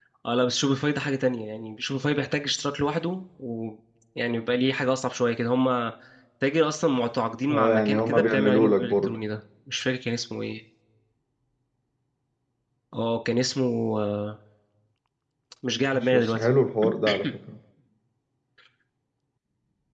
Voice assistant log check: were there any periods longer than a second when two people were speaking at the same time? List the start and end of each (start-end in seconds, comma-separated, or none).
7.5-9.2